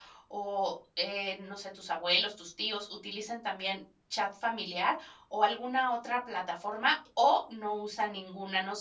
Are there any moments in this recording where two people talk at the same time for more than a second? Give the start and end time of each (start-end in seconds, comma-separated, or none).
none